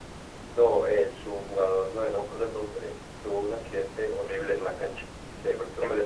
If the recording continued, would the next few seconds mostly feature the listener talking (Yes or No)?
No